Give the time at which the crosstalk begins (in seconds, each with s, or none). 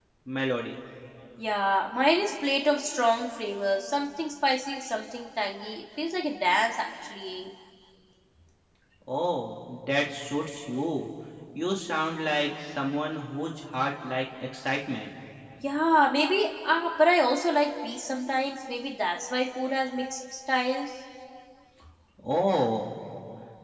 none